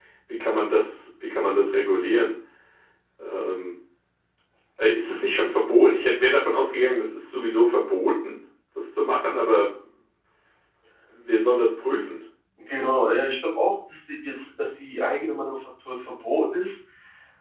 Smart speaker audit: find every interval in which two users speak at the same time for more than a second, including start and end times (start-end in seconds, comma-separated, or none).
none